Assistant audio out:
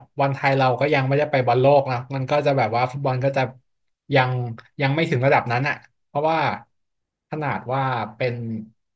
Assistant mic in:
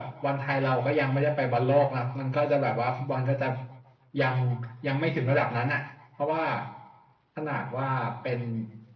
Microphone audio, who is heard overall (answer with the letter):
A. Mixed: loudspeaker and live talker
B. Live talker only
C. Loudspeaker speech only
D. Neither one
C